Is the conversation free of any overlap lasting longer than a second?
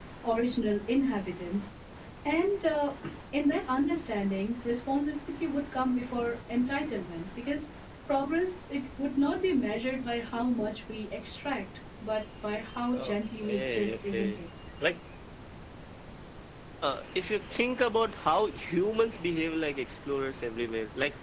No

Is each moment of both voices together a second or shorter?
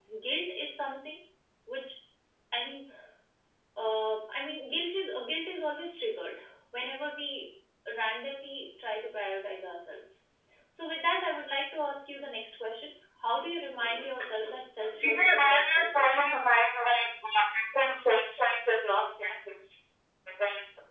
No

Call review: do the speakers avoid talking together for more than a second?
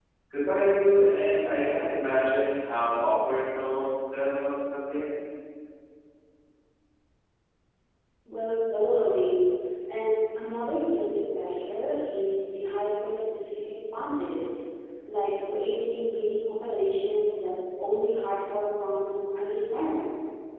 Yes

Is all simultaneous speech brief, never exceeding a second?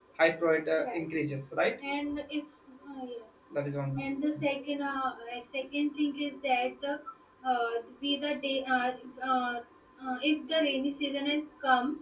Yes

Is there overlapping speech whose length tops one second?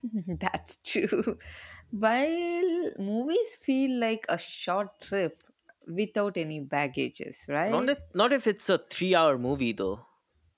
No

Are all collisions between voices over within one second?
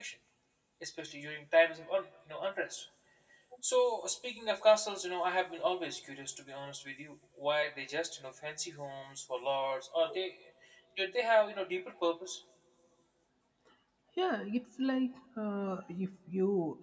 Yes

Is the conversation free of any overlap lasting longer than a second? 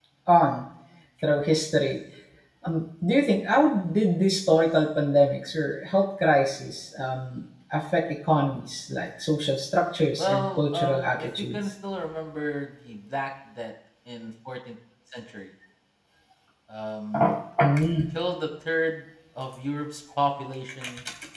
No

